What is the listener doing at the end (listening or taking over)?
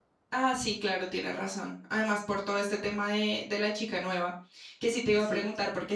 listening